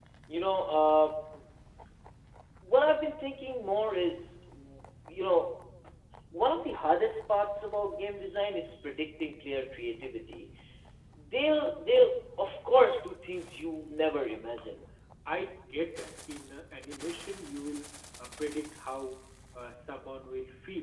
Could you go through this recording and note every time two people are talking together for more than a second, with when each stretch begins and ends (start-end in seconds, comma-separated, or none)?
none